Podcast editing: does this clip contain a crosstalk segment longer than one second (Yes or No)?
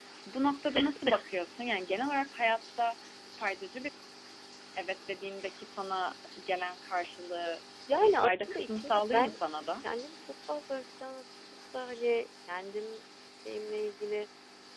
Yes